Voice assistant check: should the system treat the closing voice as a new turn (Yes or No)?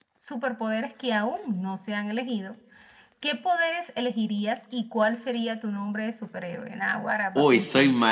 Yes